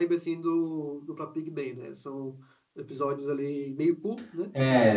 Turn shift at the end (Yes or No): Yes